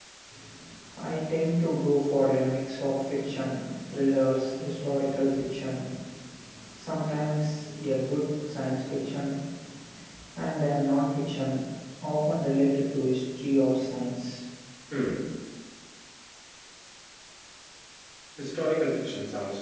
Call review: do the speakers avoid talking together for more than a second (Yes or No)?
Yes